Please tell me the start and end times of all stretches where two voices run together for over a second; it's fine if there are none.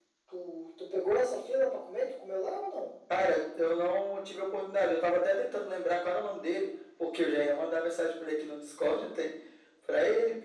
none

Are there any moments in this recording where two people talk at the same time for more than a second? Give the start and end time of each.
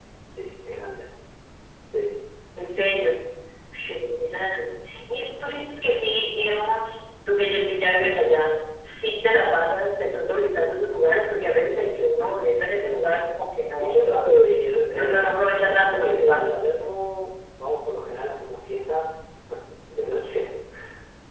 14.9-16.6

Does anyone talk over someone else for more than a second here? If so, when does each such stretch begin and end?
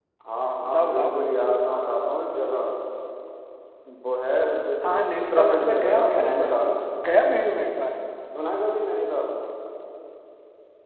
5.2-6.5

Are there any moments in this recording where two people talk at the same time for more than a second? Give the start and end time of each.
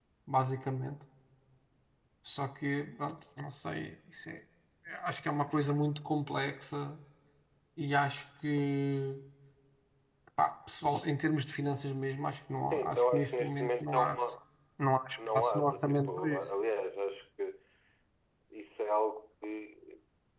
12.7-14.2, 15.3-16.5

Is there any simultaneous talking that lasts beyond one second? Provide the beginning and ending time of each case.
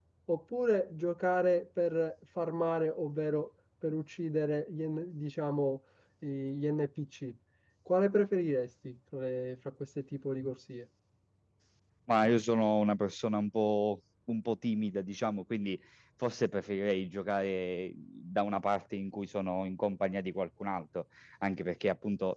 none

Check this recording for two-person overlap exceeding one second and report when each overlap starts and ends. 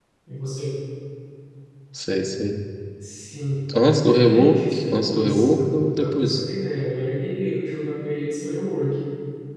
4.1-6.4

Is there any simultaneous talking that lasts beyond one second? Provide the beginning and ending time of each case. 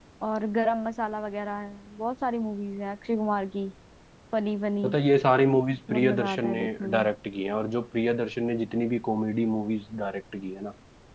5.9-7.1

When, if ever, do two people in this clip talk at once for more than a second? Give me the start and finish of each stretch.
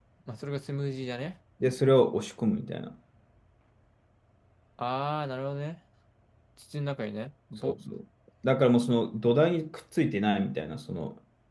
none

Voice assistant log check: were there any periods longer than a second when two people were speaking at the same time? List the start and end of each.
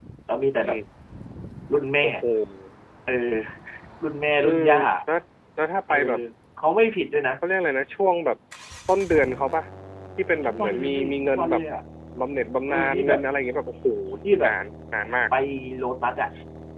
10.3-11.6

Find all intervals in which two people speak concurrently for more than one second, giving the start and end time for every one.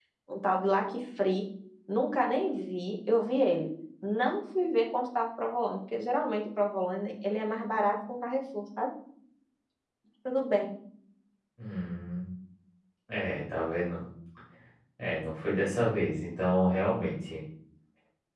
none

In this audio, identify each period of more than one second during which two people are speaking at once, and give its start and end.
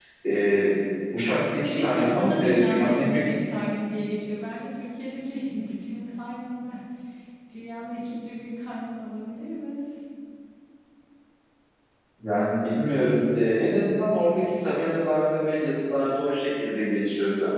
1.6-3.4

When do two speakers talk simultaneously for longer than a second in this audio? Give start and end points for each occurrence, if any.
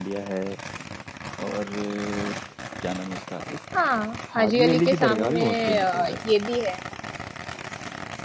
4.4-6.1

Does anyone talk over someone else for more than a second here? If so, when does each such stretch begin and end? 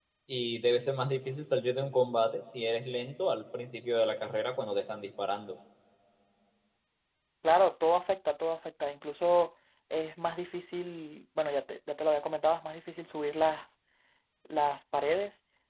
none

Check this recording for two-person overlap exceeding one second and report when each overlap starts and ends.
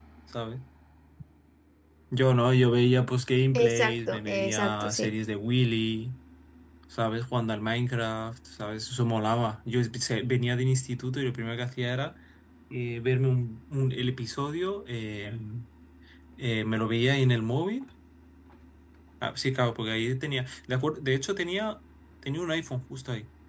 3.6-5.1

